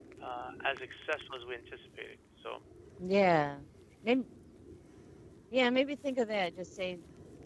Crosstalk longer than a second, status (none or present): none